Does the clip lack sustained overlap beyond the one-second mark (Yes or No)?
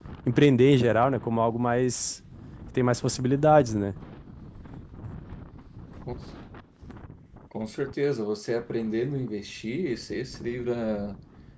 Yes